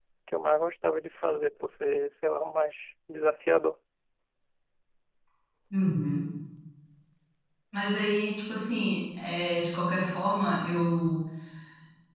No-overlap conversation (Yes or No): Yes